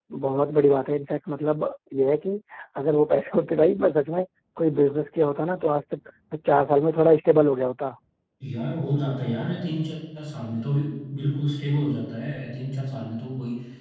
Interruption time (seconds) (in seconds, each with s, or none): none